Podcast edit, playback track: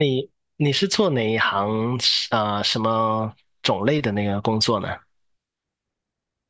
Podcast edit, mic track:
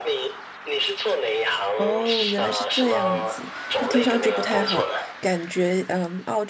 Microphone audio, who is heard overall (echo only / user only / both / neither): both